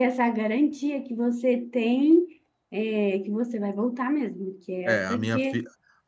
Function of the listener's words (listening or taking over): taking over